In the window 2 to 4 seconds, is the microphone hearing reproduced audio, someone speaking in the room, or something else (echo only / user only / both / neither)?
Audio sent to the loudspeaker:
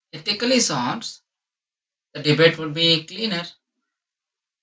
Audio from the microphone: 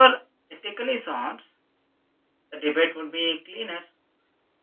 echo only